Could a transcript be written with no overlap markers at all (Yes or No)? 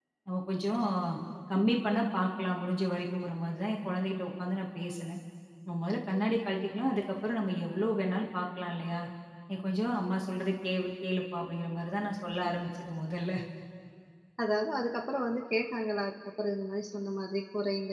Yes